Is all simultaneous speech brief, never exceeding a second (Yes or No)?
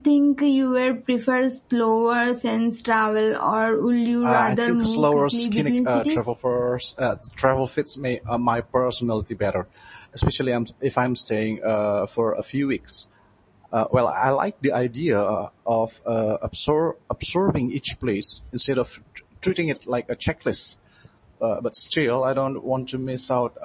No